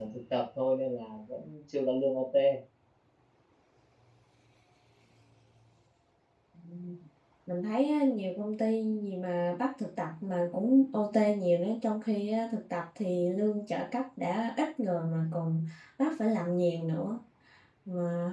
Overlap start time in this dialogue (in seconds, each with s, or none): none